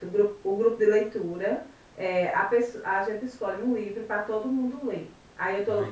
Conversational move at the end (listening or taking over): listening